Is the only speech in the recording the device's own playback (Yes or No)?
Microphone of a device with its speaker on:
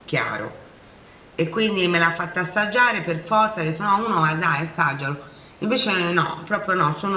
No